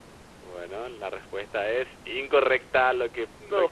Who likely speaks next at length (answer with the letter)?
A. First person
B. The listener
A